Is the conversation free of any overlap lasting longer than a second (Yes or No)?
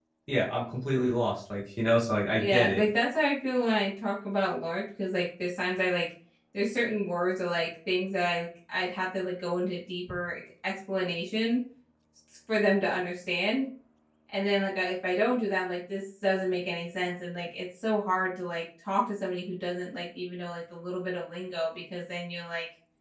Yes